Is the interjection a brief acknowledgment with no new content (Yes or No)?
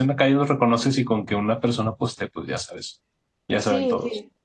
No